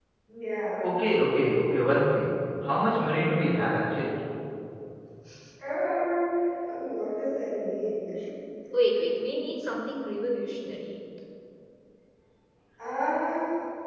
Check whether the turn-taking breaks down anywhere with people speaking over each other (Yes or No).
No